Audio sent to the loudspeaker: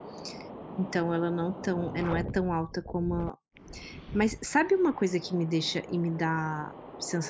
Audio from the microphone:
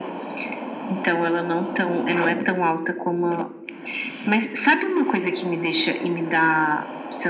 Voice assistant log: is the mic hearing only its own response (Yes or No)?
Yes